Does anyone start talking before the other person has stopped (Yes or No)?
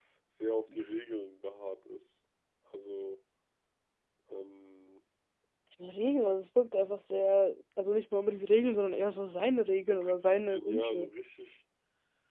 Yes